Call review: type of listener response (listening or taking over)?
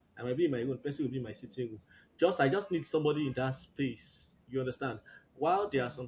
listening